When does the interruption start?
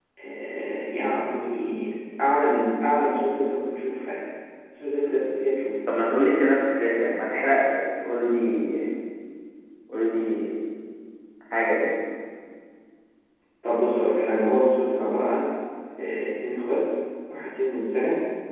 none

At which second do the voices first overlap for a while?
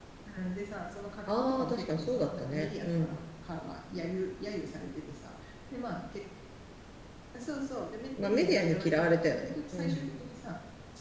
1.4 s

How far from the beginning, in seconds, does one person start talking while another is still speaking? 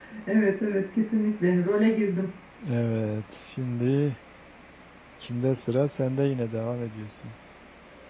none

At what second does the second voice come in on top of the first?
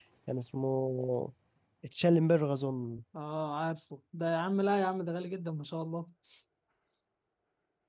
none

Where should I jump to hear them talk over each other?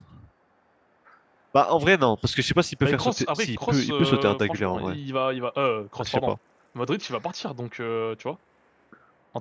2.8 s

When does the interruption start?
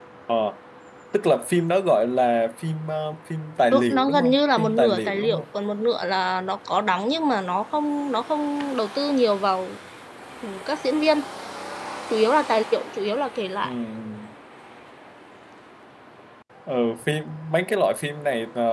3.7 s

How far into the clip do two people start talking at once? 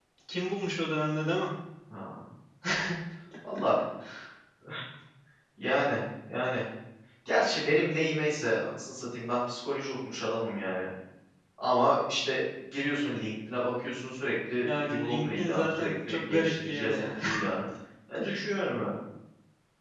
14.6 s

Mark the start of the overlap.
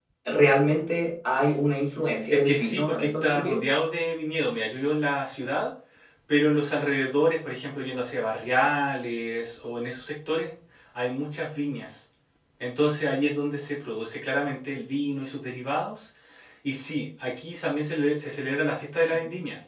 2.3 s

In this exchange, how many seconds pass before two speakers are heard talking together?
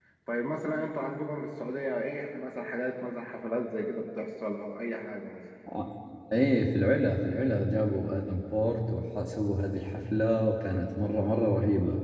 none

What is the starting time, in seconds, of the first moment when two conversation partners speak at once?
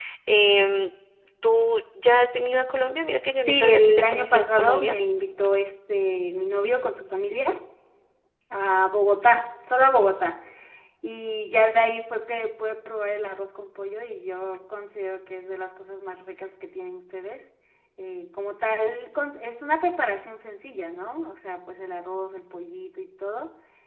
3.5 s

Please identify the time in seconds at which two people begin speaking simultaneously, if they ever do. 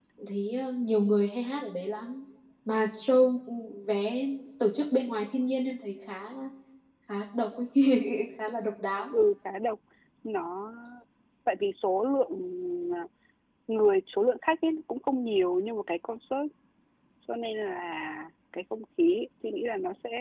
none

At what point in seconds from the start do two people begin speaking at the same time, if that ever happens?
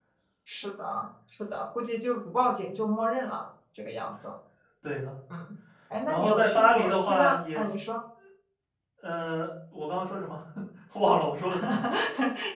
6.1 s

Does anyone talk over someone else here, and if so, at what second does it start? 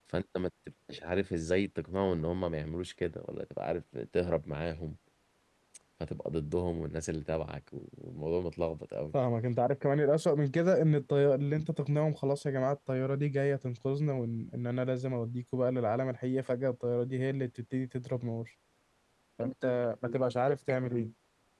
none

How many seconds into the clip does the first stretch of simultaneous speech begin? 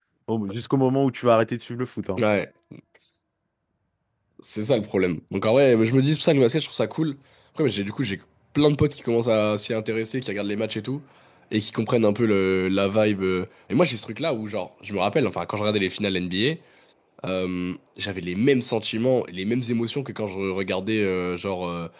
none

